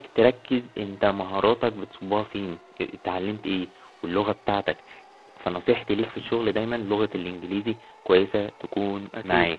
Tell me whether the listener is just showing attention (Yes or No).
No